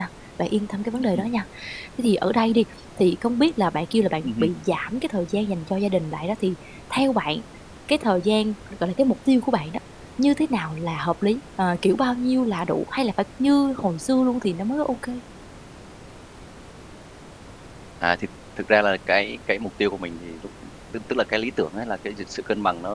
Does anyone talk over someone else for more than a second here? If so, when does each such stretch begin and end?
none

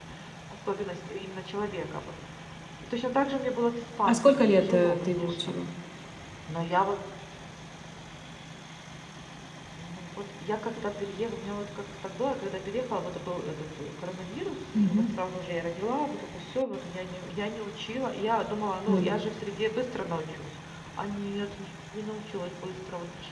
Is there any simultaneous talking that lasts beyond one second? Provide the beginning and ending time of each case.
4.0-5.5

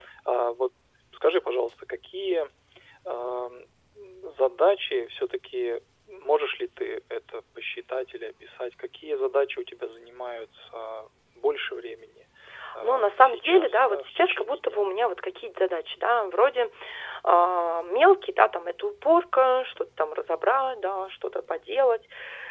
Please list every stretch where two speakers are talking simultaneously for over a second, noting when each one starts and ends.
12.8-14.8

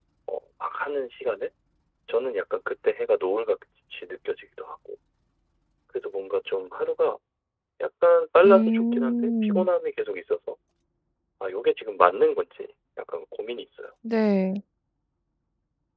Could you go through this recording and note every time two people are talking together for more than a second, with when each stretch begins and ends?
8.4-9.7

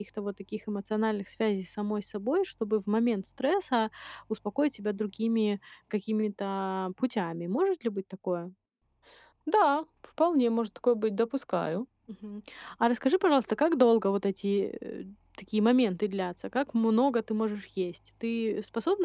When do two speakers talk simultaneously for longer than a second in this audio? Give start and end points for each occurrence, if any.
none

